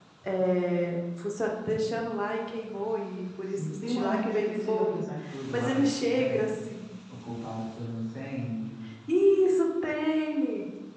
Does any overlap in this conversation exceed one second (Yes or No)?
Yes